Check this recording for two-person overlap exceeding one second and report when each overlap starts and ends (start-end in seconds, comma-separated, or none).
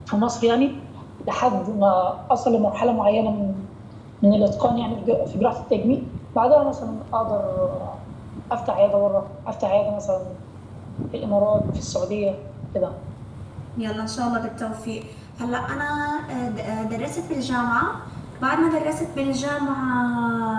none